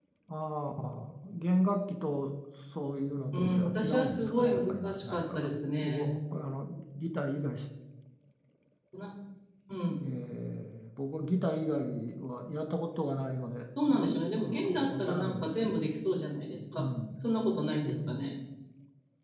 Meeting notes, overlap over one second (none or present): present